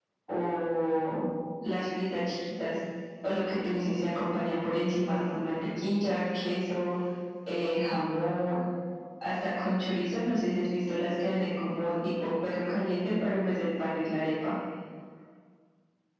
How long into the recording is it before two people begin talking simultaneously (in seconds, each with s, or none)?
none